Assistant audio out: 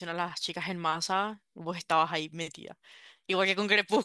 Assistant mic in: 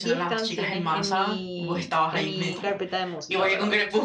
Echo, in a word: present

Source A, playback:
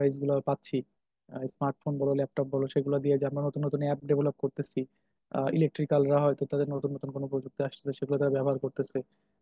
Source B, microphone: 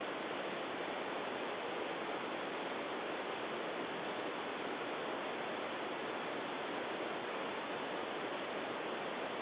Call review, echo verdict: none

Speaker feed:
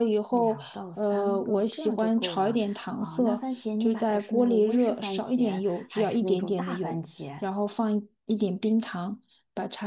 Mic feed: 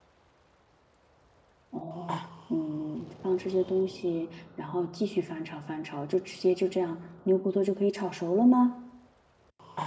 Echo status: none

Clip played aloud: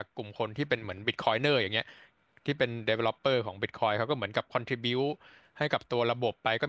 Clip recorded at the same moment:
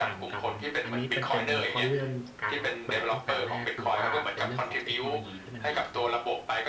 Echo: present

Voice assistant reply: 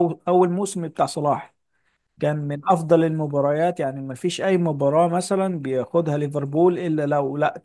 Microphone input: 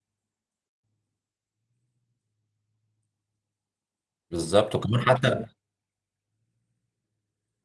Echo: none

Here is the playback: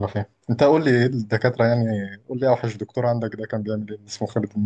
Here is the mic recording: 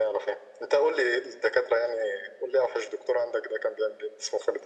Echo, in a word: present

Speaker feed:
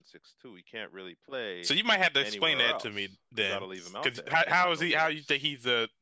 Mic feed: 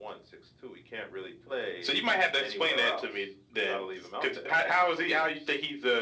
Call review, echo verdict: present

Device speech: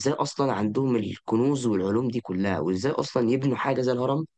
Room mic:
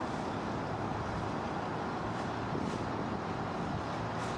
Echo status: none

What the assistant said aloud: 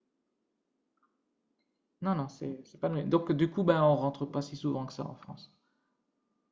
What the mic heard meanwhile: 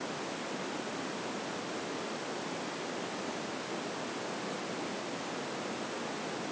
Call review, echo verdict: none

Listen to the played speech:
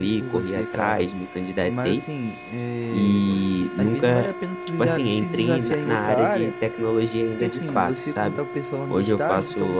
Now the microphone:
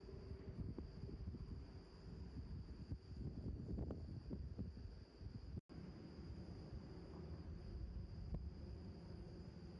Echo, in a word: none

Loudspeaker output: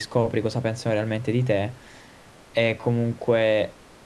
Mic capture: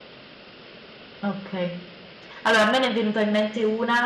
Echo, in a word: none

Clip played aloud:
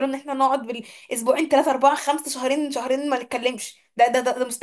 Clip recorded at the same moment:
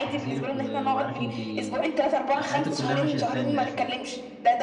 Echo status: present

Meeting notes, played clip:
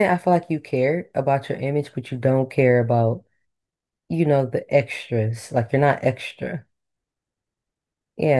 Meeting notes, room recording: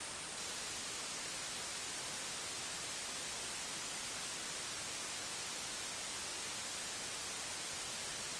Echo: none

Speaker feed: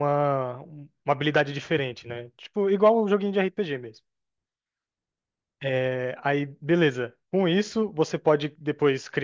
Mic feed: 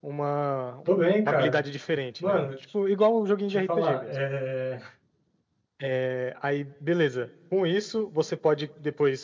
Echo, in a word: present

